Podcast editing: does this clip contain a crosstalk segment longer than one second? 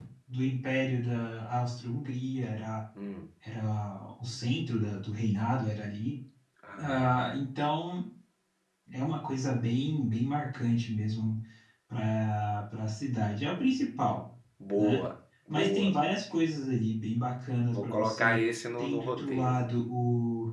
Yes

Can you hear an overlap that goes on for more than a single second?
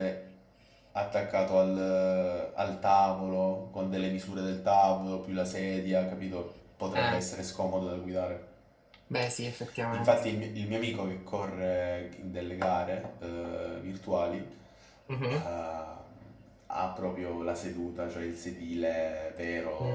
No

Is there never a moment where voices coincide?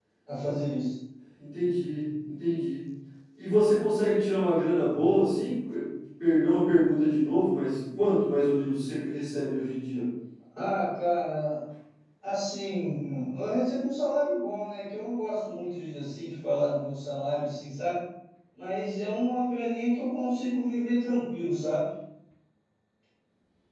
Yes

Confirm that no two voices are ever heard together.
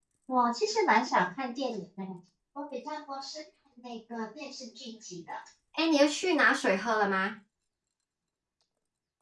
Yes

